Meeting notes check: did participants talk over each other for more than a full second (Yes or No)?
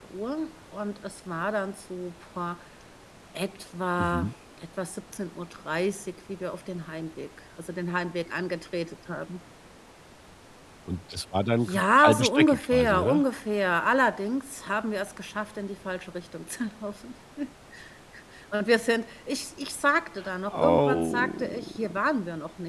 Yes